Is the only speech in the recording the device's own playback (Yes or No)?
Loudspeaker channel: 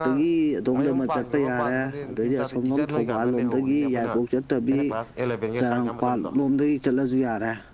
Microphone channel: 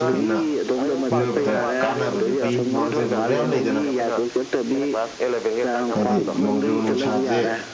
No